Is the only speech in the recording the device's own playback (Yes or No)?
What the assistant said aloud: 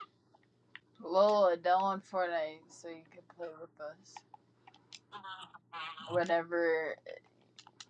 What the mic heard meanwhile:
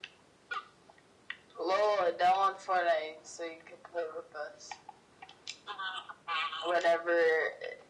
Yes